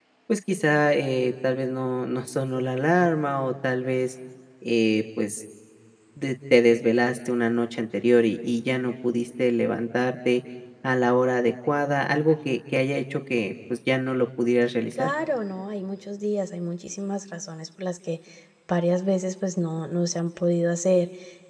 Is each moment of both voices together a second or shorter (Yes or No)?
Yes